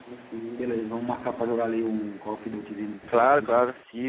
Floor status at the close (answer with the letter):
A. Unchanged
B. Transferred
B